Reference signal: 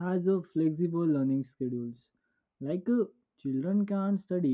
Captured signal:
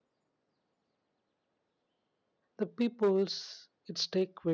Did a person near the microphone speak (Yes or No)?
Yes